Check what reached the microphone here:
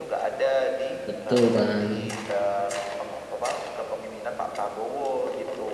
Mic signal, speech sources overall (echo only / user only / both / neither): both